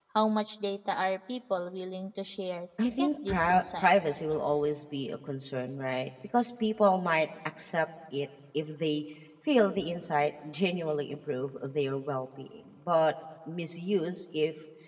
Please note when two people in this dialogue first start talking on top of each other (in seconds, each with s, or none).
2.8 s